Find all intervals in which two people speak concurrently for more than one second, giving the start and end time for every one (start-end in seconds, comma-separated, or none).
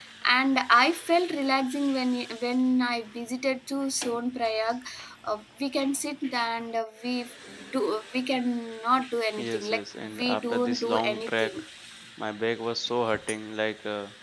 9.4-11.6